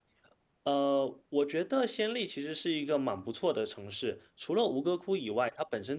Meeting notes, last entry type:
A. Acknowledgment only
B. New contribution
A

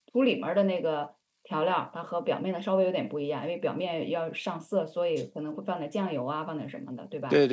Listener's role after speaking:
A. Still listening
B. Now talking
B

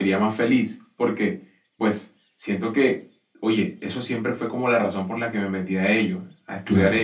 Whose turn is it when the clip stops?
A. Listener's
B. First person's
B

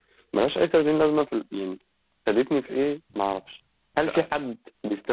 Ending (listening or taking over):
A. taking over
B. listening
B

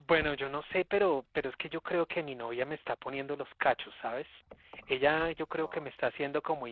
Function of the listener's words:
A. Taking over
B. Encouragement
B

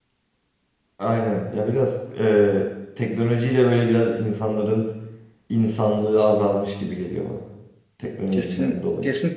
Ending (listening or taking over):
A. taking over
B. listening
A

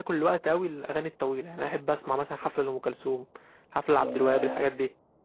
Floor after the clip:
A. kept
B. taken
B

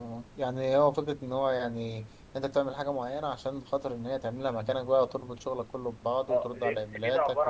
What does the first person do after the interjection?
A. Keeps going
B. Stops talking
B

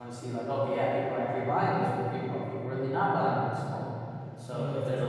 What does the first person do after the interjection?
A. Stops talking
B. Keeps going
B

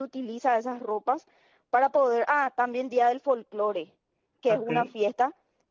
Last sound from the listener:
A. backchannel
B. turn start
A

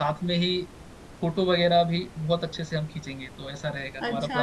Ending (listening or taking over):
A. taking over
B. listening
A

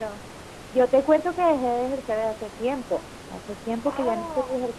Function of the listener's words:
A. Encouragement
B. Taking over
A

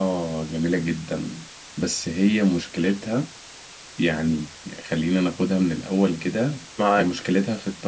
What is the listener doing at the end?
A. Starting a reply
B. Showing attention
B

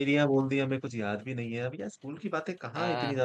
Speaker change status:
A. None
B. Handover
A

